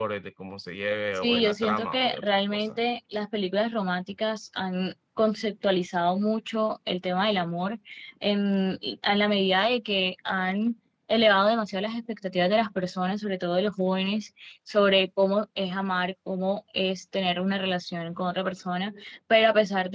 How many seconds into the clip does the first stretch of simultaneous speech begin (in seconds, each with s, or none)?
1.1 s